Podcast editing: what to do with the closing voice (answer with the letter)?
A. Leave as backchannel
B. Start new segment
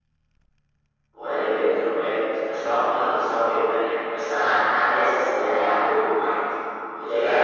B